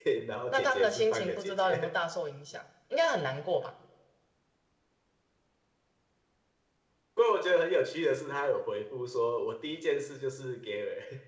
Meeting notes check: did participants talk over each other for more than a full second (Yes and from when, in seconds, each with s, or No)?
Yes, from 0.5 s